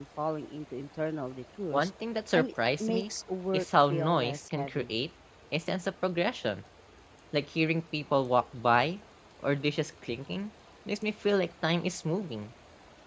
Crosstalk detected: Yes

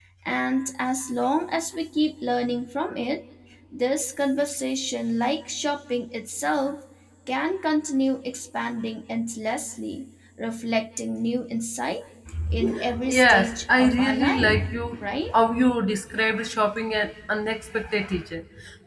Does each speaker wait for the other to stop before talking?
No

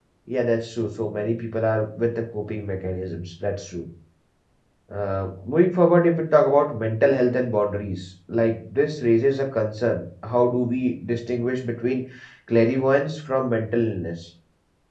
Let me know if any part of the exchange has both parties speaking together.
No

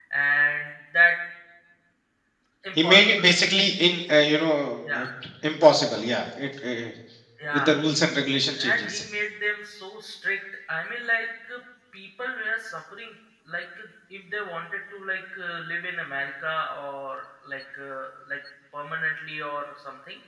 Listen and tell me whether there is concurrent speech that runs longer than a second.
No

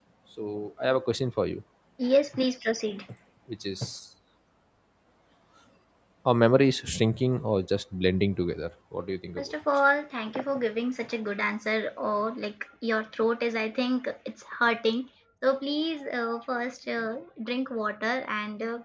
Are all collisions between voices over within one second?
Yes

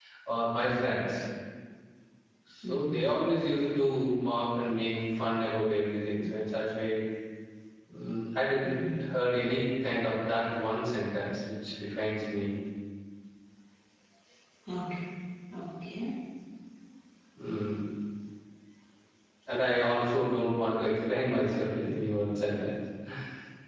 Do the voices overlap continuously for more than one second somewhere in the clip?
No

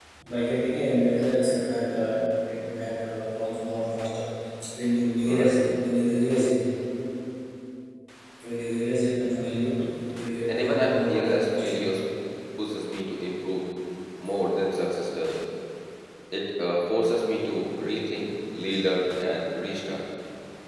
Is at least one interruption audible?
Yes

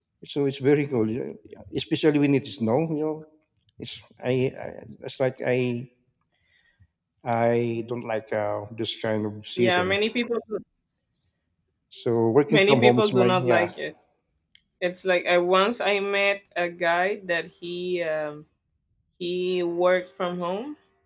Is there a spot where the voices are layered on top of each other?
Yes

